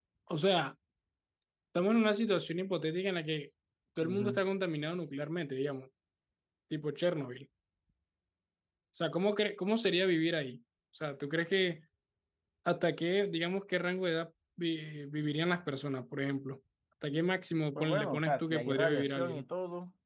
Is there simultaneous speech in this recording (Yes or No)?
Yes